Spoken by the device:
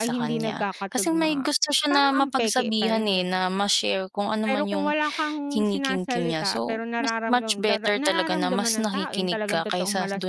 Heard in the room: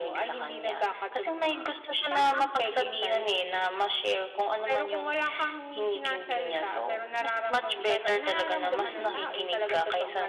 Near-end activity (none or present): present